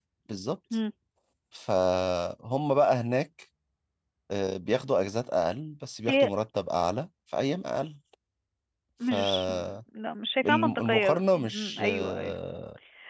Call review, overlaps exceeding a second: present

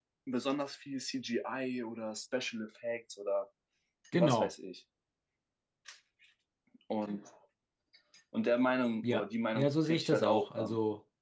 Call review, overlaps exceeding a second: present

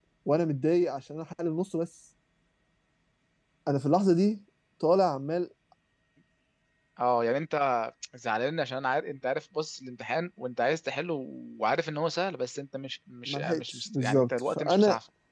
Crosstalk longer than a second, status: present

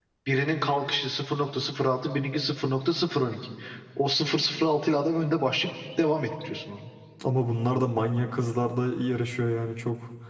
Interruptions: none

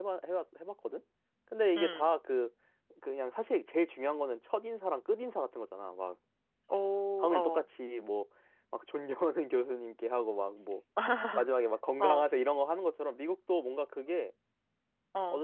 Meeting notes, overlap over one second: none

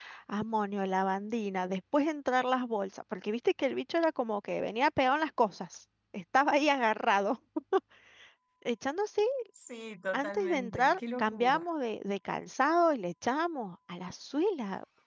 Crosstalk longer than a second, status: present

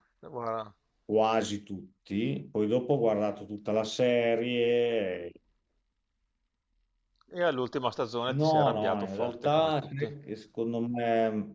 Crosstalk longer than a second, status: present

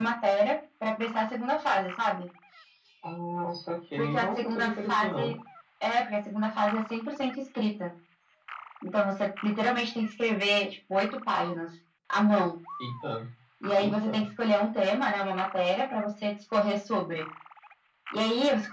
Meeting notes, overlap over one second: present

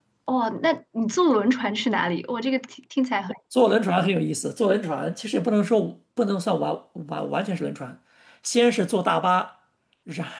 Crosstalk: none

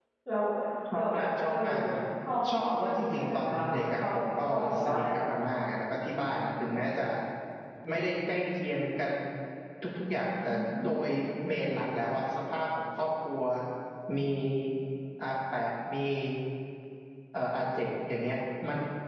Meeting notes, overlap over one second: present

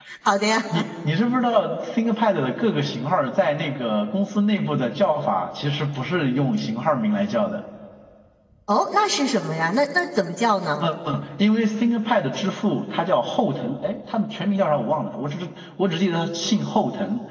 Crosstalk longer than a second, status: none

